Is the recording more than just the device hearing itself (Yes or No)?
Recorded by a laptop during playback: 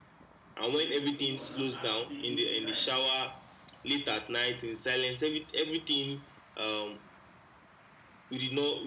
Yes